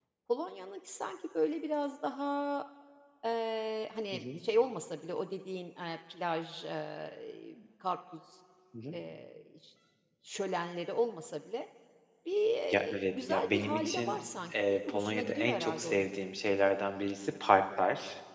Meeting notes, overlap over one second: present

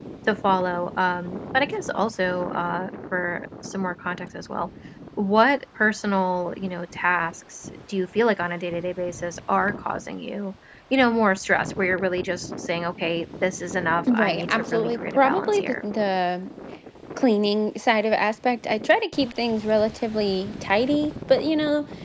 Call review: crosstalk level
present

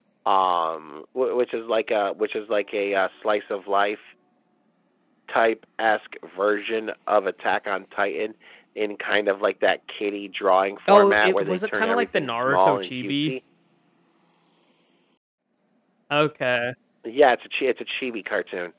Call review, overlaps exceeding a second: present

